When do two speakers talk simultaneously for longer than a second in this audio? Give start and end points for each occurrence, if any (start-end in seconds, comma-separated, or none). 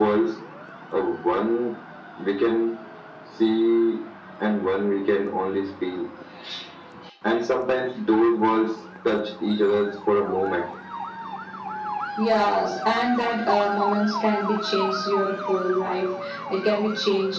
none